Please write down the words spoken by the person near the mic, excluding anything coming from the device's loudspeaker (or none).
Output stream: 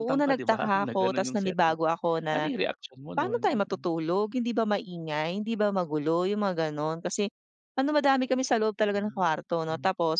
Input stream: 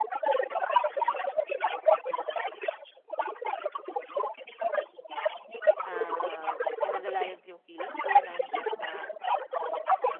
ah, inalalayan ko yung kilos ko na hindi ako ma